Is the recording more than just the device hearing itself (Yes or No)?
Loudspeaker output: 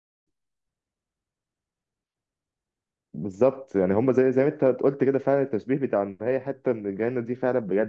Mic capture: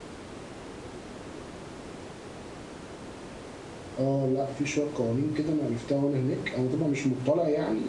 Yes